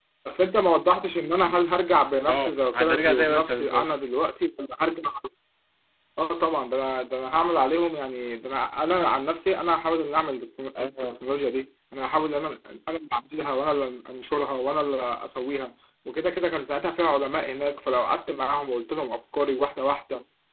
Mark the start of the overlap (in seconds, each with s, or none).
2.3 s